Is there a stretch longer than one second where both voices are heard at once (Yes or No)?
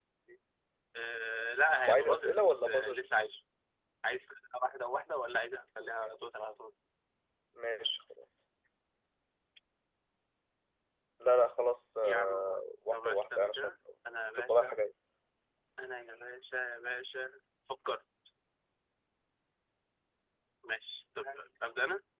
Yes